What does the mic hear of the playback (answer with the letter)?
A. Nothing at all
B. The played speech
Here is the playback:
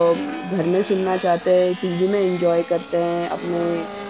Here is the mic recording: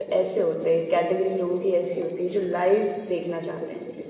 A